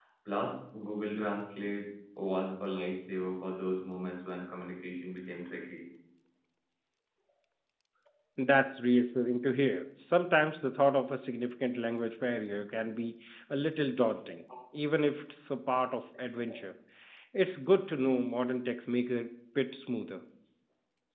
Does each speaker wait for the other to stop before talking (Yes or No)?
Yes